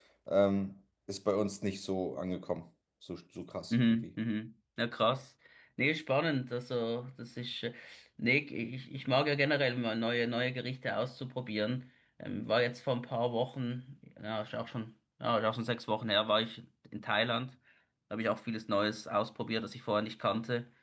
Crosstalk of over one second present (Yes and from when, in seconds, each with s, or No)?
No